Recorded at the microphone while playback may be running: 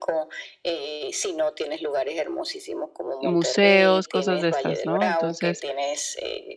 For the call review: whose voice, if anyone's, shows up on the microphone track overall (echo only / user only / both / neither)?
both